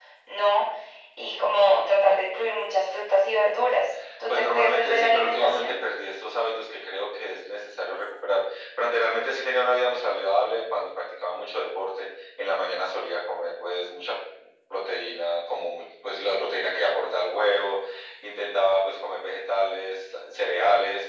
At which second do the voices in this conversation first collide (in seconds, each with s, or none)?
4.3 s